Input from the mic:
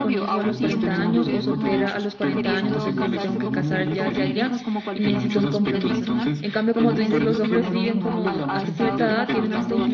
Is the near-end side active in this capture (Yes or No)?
Yes